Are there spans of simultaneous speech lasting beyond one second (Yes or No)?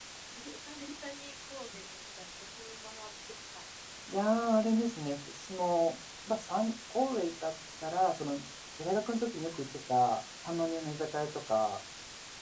No